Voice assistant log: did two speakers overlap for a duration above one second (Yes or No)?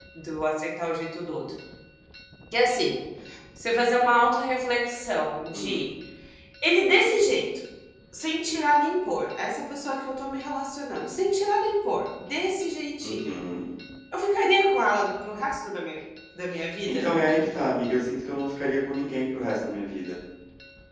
No